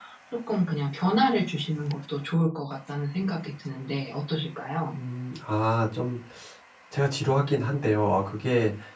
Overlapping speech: No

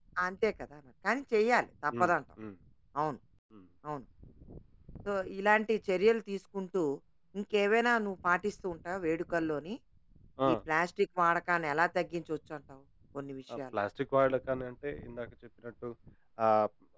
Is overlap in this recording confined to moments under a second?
Yes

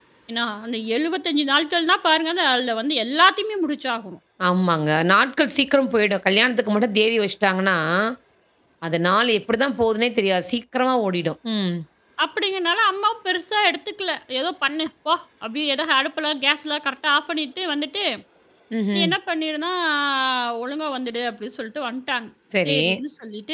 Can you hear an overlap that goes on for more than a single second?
No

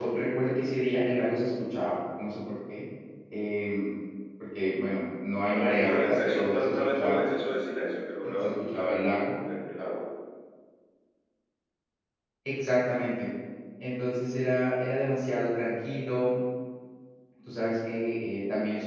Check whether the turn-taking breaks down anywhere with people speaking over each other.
Yes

